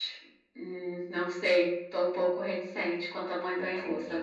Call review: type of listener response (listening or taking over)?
taking over